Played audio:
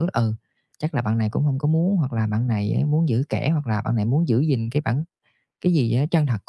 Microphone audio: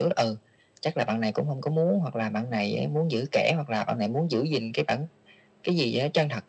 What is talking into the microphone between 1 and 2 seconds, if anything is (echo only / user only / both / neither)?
echo only